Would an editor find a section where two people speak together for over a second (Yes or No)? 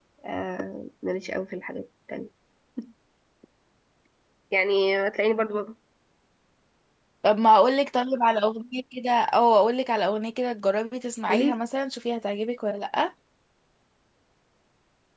No